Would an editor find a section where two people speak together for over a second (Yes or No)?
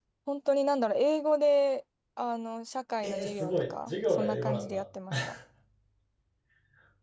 Yes